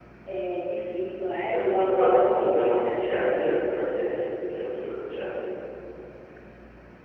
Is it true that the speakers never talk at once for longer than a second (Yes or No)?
No